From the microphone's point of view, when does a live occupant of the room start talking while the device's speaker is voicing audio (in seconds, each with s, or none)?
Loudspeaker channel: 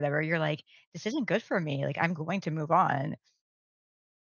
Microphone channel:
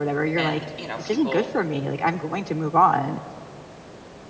0.4 s